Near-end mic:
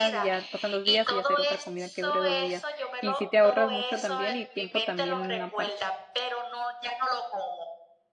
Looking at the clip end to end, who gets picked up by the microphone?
both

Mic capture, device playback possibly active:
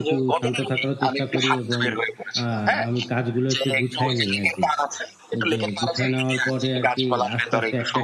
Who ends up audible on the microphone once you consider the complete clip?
both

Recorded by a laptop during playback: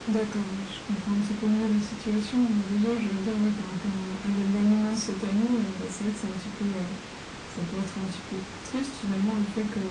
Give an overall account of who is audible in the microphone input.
echo only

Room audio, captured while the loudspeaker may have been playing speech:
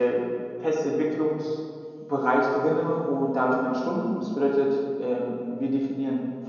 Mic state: user only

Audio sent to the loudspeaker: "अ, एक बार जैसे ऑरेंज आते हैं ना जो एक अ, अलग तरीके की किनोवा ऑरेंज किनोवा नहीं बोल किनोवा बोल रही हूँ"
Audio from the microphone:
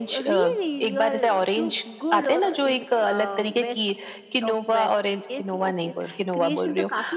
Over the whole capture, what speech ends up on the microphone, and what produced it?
both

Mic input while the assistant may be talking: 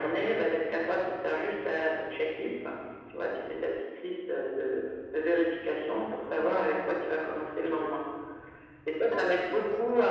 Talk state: both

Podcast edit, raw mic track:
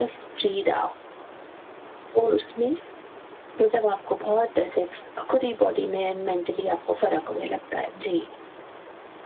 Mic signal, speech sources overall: echo only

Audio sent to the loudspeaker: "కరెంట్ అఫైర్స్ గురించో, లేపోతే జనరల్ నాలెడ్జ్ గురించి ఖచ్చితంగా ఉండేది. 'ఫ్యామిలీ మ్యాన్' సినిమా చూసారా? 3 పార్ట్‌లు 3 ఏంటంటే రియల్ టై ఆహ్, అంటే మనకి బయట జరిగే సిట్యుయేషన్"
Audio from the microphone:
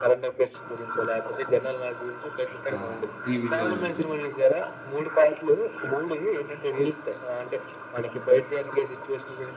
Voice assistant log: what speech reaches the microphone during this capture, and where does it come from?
both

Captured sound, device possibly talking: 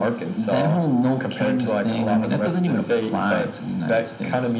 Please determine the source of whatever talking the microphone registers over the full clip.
echo only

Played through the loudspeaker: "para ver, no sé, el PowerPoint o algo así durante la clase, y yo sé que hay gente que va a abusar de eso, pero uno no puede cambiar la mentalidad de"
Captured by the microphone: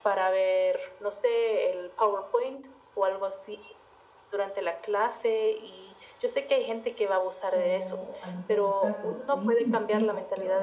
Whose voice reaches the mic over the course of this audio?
both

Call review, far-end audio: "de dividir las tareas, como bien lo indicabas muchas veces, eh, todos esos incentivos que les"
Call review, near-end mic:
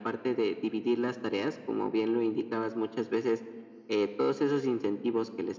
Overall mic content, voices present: echo only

